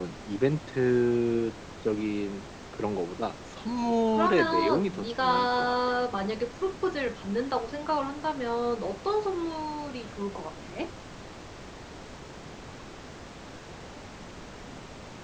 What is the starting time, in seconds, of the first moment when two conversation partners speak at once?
4.1 s

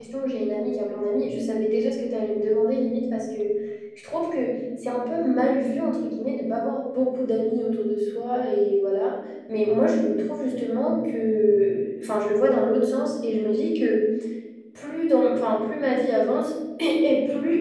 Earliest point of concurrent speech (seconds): none

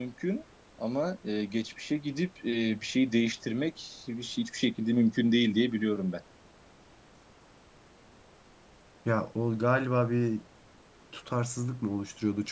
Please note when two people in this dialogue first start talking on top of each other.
none

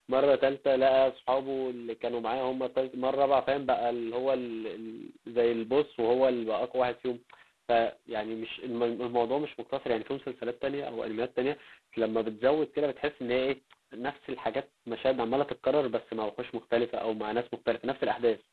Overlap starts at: none

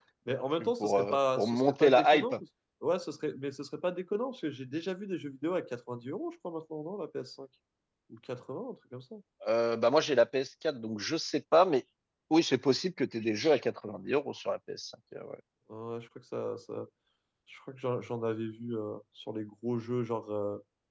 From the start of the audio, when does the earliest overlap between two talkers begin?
0.6 s

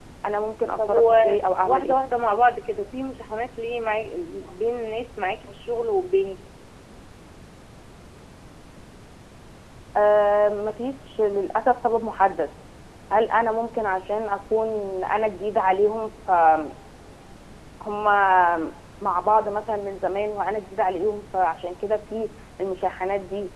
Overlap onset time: 0.8 s

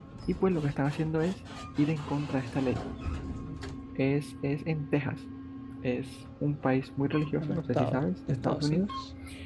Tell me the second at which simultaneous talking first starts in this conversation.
7.4 s

